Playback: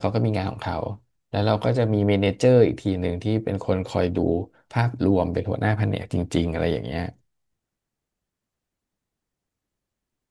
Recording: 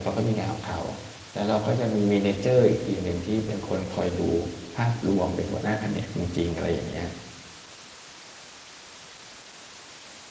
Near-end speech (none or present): none